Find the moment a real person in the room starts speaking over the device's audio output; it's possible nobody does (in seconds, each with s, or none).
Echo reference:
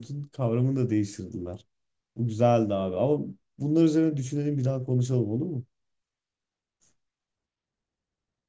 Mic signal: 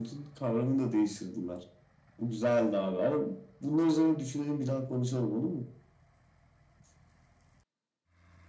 none